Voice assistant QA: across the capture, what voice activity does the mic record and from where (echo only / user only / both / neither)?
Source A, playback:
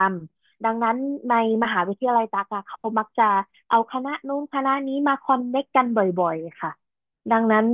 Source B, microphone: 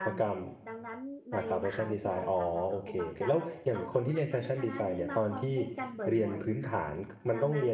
both